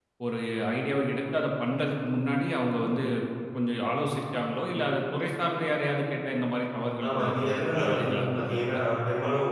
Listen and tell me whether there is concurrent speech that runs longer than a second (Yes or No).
Yes